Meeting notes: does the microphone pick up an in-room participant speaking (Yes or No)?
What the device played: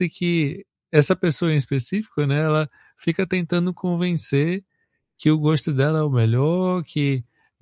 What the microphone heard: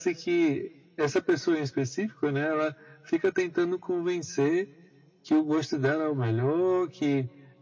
No